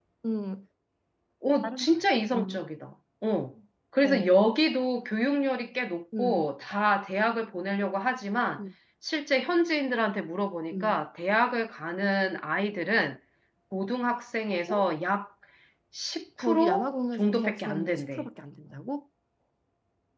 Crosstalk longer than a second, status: present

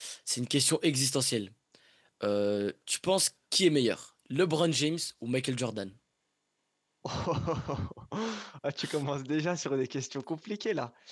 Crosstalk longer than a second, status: none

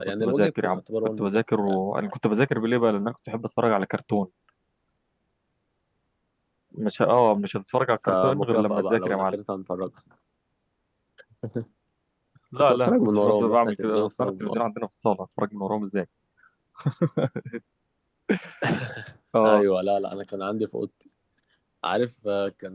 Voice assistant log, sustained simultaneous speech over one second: present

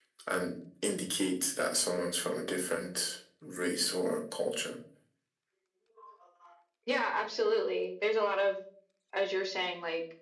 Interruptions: none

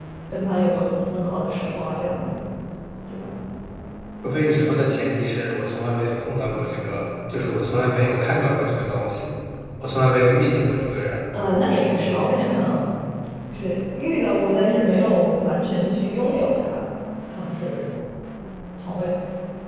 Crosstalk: none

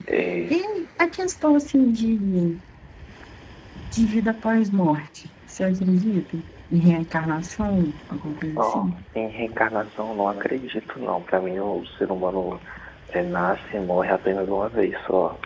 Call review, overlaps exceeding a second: none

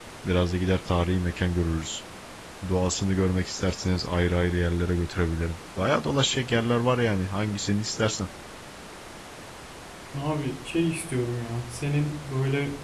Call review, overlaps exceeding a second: none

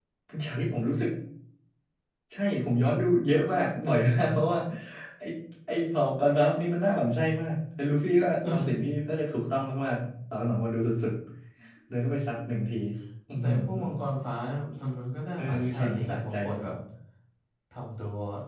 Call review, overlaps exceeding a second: present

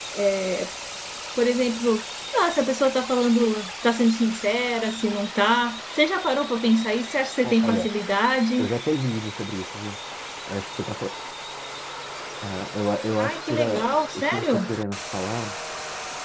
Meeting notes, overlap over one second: present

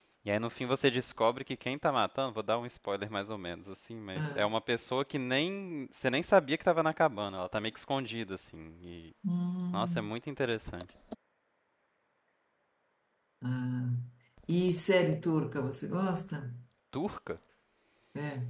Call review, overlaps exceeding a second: none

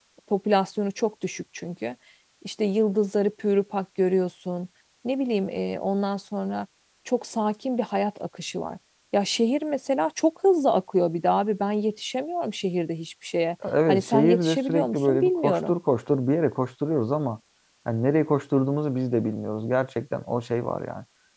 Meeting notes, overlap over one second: present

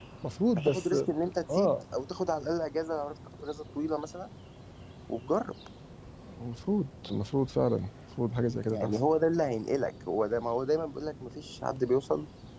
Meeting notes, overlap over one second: none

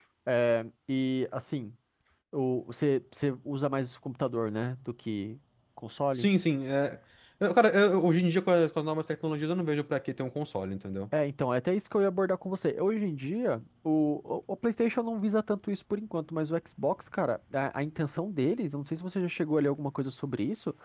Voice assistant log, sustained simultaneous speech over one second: none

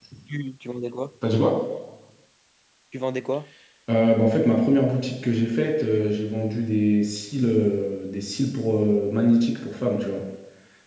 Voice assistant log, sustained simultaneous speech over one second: none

